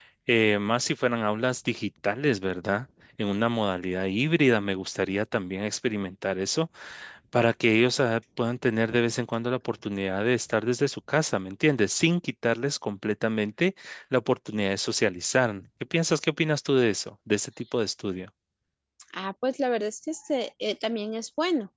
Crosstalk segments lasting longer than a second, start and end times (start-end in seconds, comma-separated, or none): none